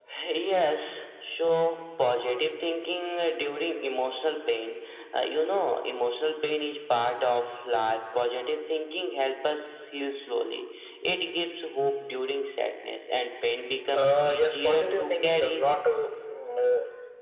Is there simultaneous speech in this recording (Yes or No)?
Yes